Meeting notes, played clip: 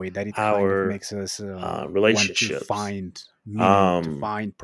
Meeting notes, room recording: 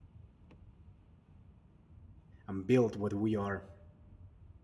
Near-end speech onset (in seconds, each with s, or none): 2.5 s